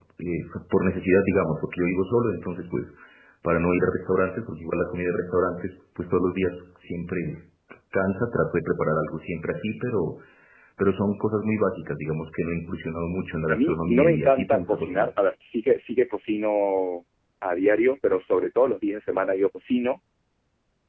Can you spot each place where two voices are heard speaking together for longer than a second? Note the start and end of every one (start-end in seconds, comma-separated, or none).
13.5-15.1